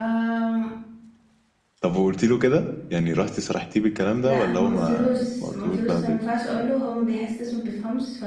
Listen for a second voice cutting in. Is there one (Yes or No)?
Yes